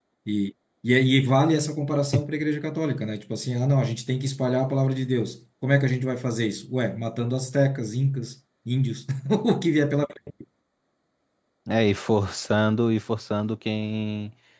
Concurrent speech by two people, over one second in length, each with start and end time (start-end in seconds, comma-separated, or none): none